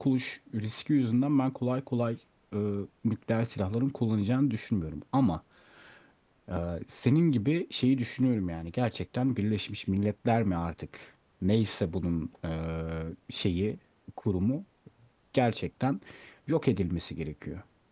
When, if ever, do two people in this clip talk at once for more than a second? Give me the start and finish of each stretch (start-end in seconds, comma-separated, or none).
none